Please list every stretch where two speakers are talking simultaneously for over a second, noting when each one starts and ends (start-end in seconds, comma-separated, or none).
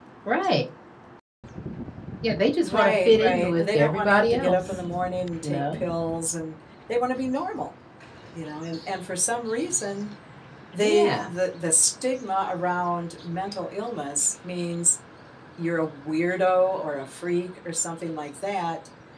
2.6-4.6